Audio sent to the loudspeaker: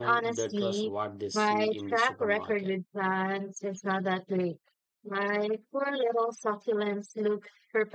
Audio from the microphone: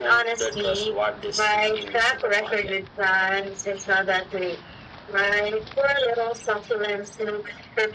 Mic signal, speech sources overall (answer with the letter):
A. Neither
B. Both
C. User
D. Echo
D